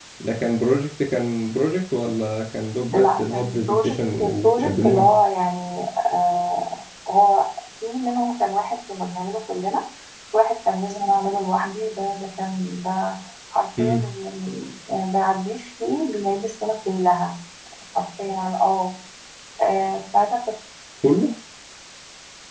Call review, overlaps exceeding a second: present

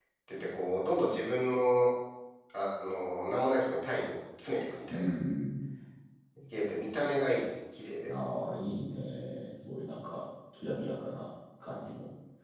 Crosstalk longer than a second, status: none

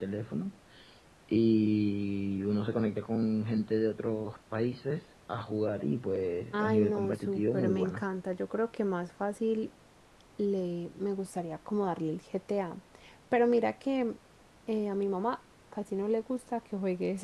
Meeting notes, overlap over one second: present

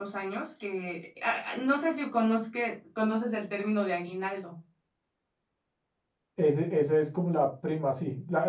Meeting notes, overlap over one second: none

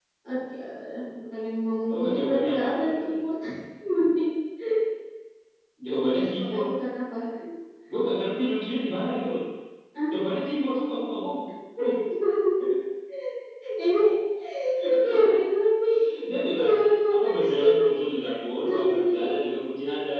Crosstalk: present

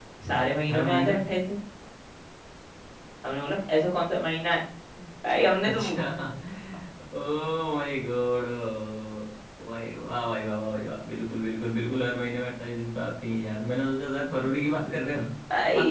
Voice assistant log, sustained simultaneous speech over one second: none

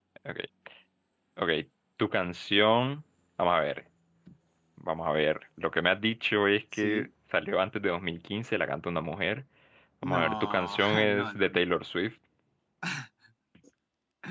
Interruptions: present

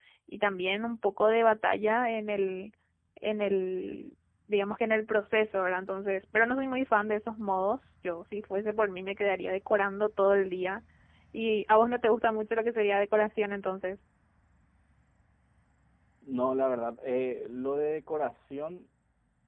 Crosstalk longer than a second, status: none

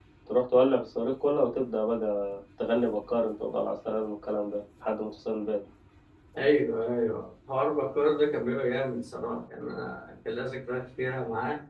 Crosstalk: none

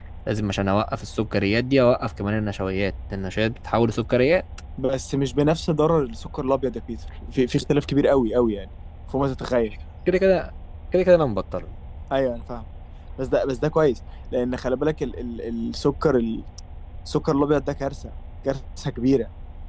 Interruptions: none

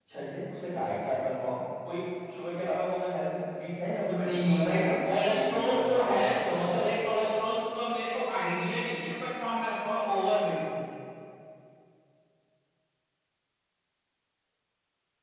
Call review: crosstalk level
present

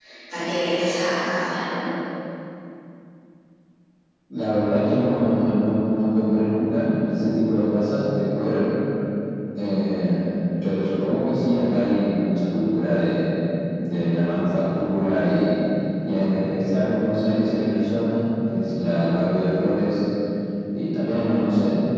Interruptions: none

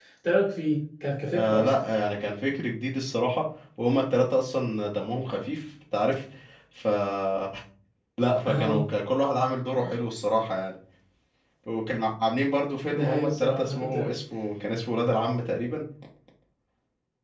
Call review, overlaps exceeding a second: present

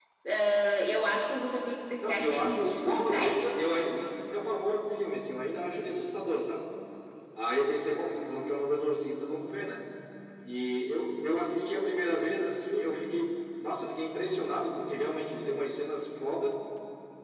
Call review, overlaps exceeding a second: present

